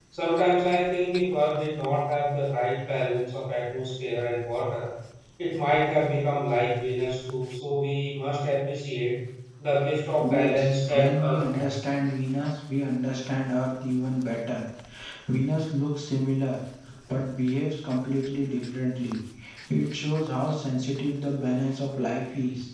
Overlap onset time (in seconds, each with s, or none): 10.3 s